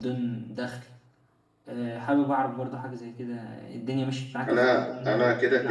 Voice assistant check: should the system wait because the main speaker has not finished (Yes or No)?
No